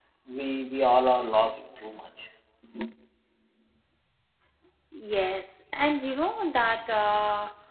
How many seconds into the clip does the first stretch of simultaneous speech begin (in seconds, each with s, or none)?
none